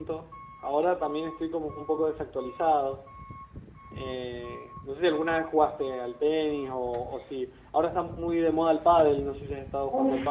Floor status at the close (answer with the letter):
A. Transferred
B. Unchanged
A